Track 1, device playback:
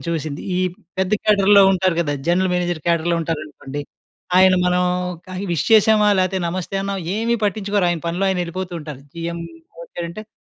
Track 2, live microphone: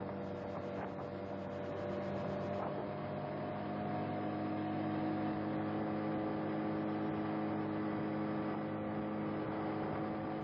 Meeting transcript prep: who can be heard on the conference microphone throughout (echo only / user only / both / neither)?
neither